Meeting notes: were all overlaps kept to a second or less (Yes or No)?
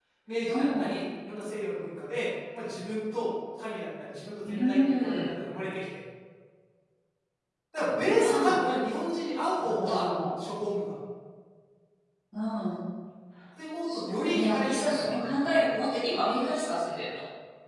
No